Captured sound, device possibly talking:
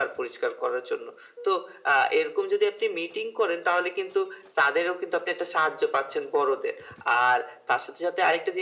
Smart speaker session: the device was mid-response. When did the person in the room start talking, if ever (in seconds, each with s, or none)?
none